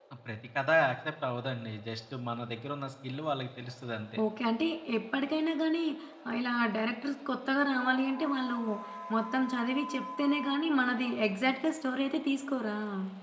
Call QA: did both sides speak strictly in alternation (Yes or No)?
Yes